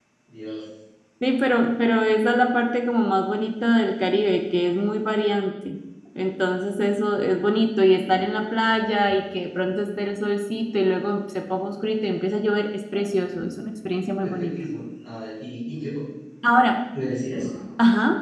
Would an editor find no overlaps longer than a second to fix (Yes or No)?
Yes